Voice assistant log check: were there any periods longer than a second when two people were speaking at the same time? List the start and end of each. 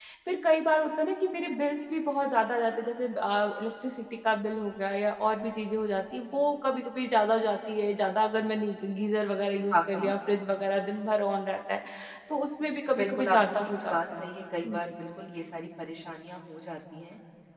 12.9-14.2

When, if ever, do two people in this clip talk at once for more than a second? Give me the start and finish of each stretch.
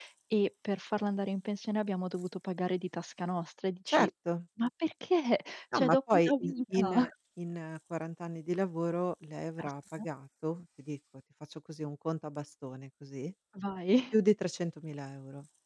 5.7-7.1

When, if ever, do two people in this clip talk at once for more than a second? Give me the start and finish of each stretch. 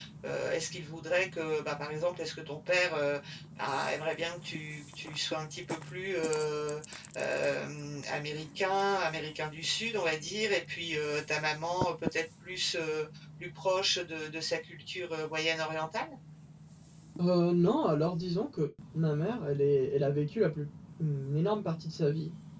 none

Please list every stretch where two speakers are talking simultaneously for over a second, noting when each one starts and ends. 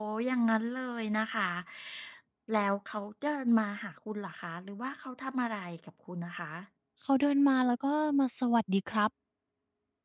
none

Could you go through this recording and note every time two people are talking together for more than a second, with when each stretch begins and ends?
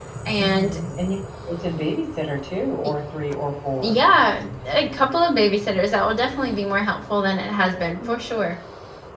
none

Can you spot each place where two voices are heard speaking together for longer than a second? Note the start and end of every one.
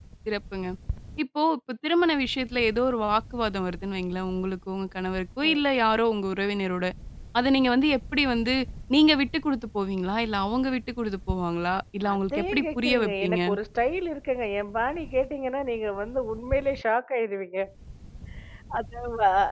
12.1-13.4

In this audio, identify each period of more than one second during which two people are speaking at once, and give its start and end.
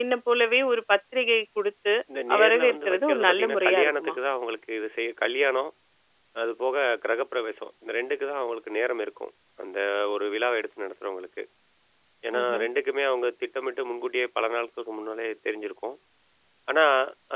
2.4-4.1

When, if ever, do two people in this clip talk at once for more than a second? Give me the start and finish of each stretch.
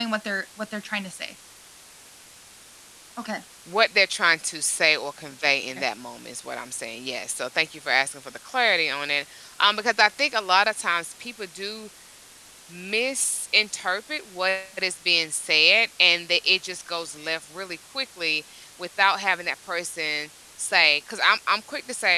none

